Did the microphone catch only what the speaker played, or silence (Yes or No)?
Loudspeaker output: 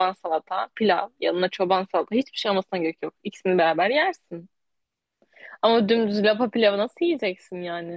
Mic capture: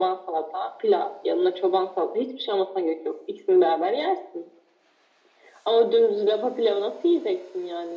Yes